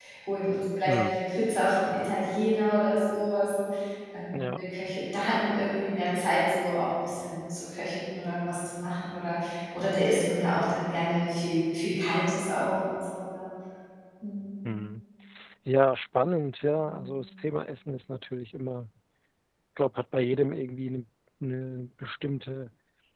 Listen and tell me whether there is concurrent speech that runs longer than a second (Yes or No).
No